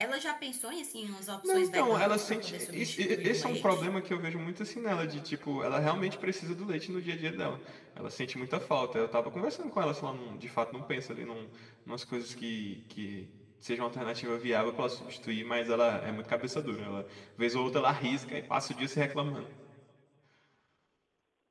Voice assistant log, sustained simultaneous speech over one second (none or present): present